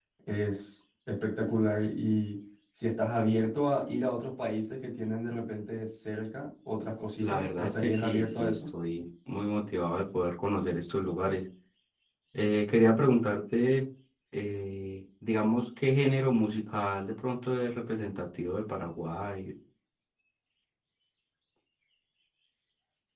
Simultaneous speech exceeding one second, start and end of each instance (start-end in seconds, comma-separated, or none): 7.2-8.7